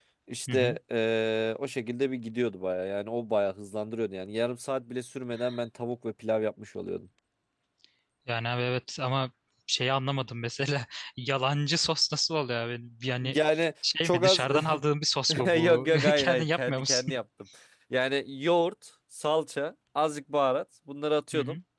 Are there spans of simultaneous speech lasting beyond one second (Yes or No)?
Yes